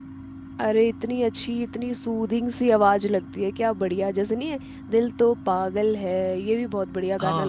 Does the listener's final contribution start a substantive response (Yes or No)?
Yes